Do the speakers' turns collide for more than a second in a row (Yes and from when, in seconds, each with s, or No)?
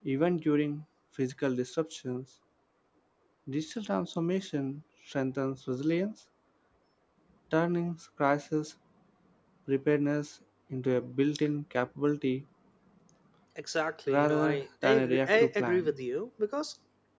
Yes, from 14.1 s